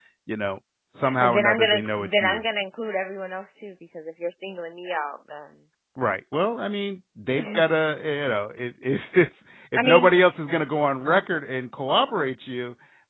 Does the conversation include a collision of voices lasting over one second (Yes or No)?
Yes